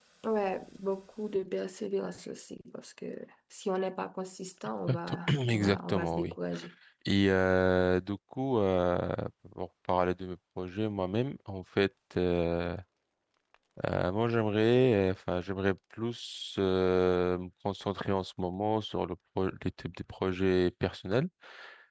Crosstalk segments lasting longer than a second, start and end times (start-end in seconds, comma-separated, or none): 4.9-6.3